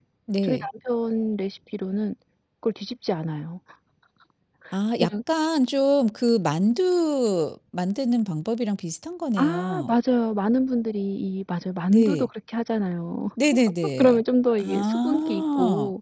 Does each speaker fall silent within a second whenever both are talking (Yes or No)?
No